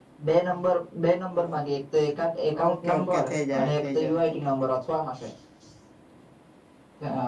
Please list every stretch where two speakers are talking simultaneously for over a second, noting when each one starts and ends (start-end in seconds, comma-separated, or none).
2.7-4.3